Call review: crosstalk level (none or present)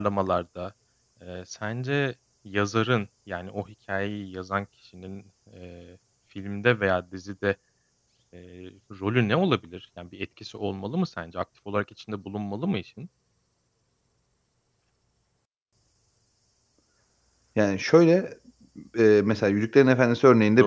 none